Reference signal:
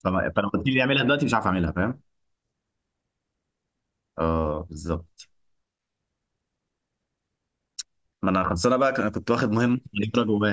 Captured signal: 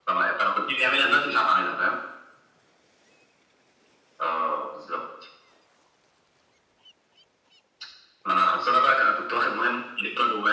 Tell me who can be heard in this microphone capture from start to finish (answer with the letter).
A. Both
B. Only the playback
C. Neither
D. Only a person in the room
B